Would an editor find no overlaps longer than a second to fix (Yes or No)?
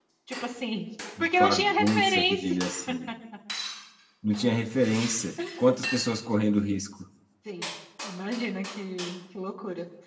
No